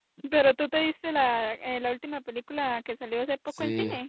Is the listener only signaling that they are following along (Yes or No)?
No